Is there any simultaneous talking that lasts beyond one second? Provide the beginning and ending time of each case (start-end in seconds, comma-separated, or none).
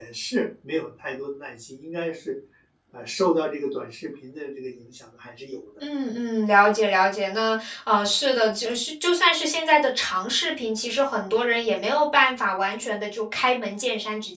none